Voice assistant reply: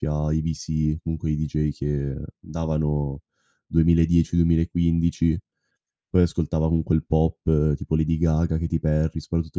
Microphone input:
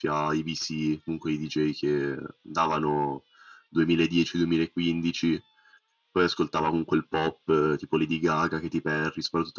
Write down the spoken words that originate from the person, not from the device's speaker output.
none

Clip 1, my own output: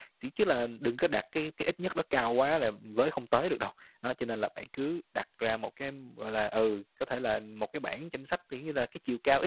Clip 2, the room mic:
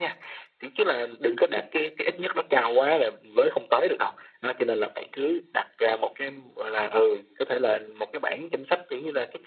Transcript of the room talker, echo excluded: none

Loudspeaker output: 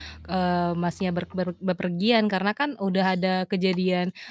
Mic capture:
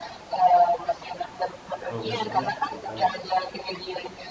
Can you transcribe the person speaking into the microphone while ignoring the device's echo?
Kalau gak salah sekitar

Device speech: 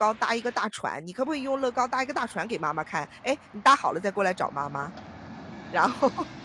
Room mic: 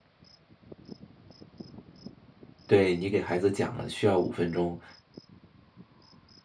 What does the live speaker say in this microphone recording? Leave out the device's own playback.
对，你给孩子讲了需要5分钟，

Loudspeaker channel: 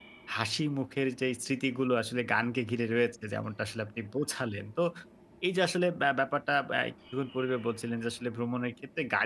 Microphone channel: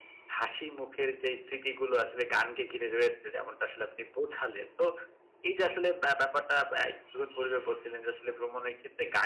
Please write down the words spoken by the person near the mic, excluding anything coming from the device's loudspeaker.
none

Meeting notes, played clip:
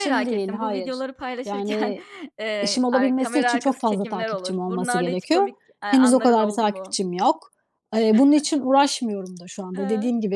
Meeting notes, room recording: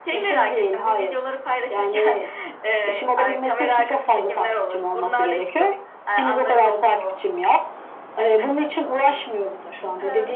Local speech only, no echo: none

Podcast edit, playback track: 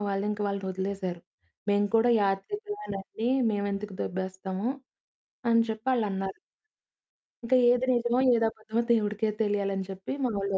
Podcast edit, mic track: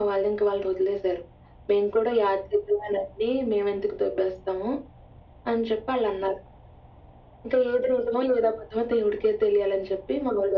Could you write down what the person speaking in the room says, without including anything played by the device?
none

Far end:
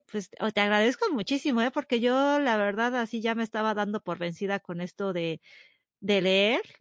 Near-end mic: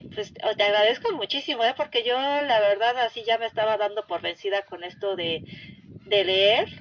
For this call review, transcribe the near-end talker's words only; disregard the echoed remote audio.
none

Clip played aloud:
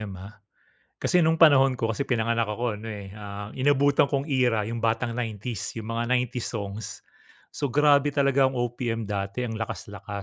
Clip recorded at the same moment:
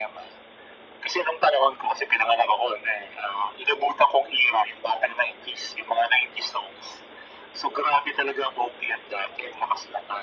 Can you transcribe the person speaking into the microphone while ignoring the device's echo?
none

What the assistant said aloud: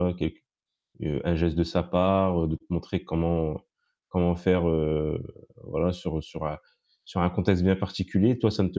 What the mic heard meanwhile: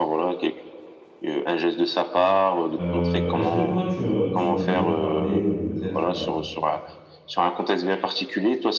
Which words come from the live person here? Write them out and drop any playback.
Heu, est-ce que toi, tu, heu, tu en as déjà parlé, heu, peut-être à

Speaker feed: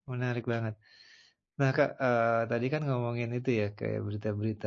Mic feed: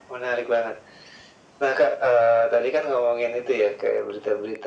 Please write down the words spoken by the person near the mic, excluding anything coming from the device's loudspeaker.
none

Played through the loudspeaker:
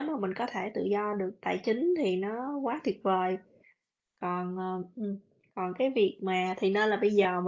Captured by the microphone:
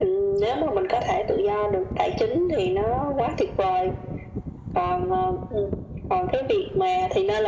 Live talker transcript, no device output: none

